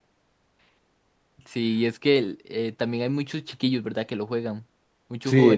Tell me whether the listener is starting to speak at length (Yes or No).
Yes